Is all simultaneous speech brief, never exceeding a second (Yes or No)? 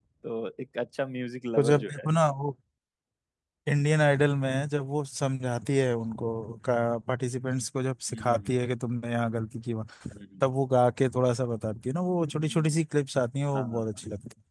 Yes